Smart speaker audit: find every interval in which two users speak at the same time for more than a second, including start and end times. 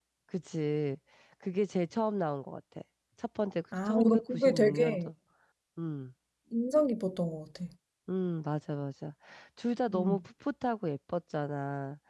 3.9-5.1

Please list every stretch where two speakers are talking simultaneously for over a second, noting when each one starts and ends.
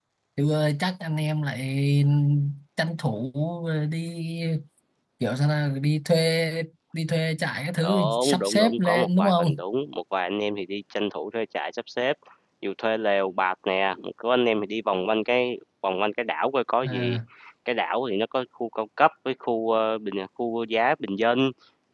7.8-9.6

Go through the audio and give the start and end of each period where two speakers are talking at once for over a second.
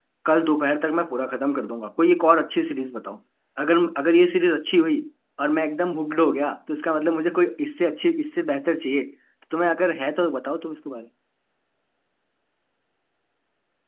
none

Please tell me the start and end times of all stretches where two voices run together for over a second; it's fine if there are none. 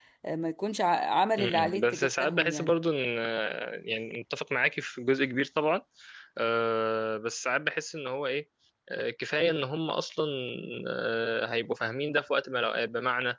1.4-2.8

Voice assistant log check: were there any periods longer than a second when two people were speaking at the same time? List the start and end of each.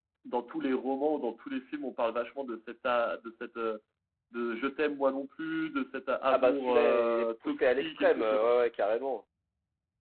6.3-8.5

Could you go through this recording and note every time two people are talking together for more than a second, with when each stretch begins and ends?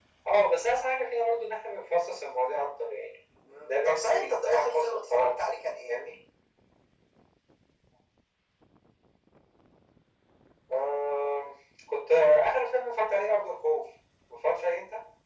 3.6-5.3

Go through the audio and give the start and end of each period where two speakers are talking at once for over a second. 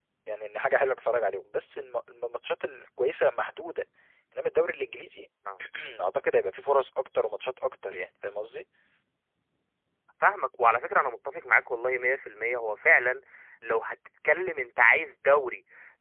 none

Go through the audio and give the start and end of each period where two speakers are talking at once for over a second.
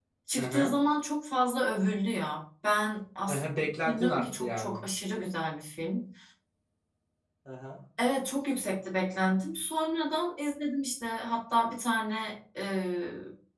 3.3-4.8

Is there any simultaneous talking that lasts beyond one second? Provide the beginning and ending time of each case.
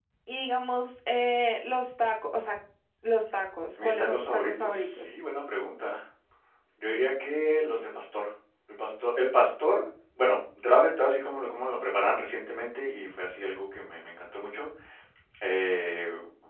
3.8-5.1

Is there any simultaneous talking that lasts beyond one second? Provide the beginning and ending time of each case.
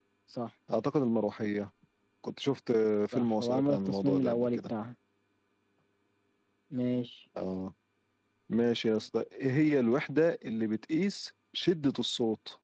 3.1-4.7

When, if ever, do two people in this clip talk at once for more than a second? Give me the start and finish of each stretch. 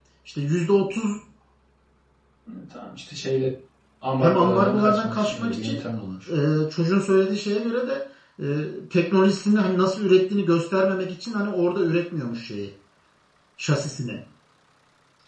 4.2-5.8

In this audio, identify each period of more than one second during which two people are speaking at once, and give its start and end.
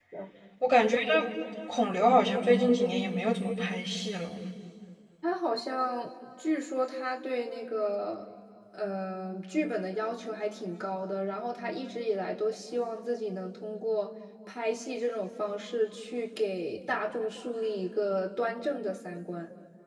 none

